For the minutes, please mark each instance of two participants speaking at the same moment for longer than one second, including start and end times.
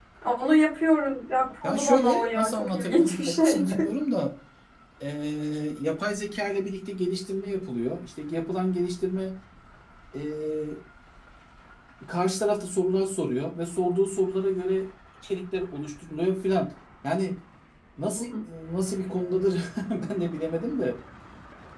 1.6-3.9

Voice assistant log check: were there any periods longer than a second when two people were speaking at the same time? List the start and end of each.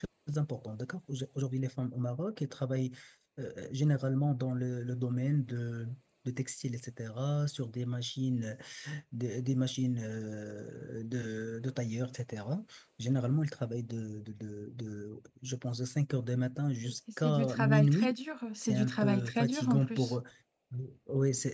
16.8-18.1, 18.6-20.2

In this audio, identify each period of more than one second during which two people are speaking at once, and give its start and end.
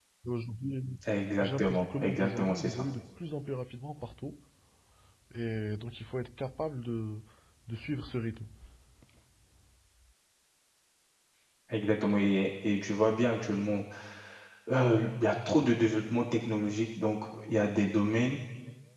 1.4-2.8

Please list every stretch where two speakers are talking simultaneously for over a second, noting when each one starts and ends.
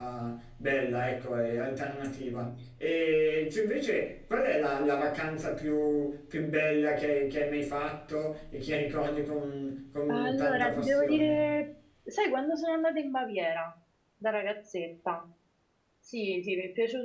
10.1-11.6

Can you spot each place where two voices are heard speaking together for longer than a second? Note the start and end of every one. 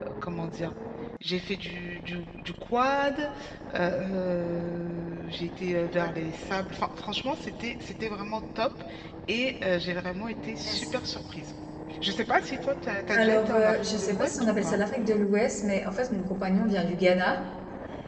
13.1-14.8

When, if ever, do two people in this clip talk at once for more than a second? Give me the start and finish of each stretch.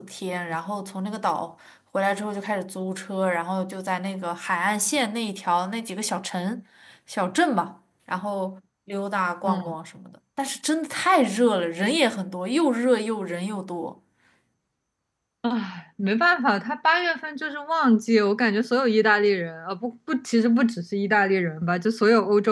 none

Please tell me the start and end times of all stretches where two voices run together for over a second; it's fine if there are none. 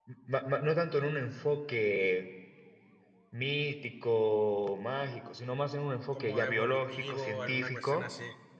6.1-8.1

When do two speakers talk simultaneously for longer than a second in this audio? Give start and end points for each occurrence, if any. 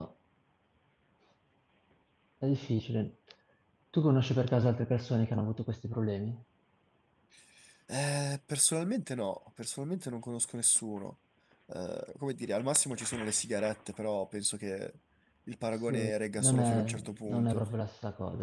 15.9-17.6

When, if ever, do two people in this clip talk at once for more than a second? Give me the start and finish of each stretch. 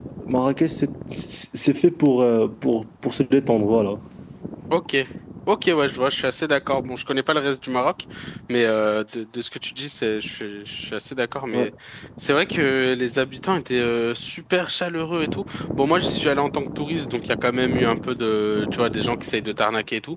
none

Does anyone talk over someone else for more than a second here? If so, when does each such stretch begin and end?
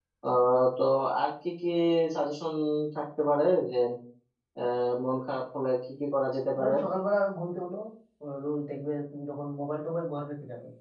none

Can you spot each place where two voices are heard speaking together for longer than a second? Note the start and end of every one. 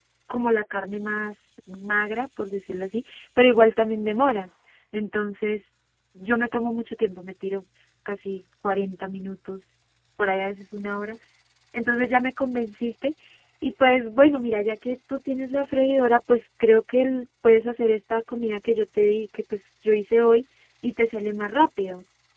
none

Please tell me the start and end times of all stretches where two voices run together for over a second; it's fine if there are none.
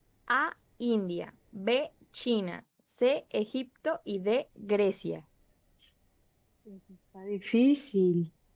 none

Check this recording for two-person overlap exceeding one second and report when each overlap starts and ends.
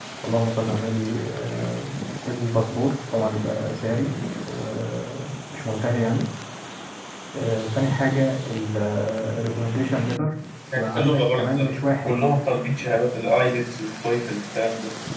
10.8-12.2

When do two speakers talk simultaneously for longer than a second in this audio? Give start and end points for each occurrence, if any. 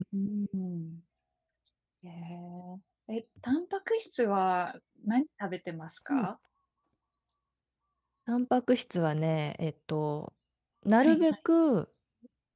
none

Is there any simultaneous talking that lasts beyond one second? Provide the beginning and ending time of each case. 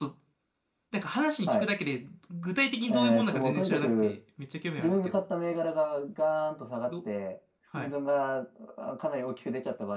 2.9-4.1

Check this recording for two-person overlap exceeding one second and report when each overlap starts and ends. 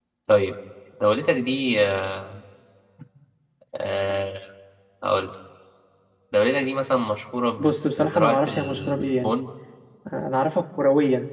7.6-9.3

